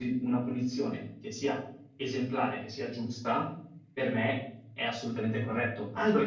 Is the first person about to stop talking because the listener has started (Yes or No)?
No